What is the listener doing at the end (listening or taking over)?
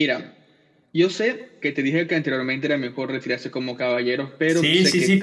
taking over